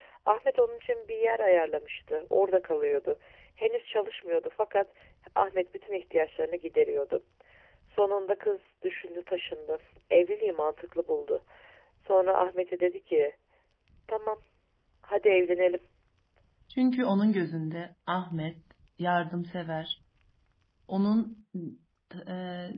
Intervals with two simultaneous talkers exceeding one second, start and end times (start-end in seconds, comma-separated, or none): none